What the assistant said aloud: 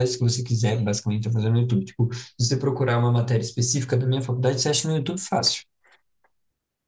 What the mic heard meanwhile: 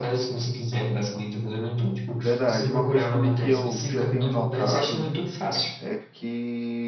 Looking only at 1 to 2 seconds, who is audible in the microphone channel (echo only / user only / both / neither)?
echo only